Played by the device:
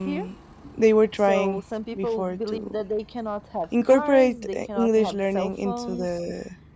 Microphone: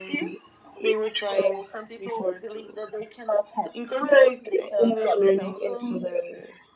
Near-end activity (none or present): none